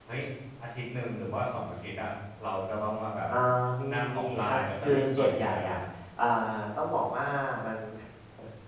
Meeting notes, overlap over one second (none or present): present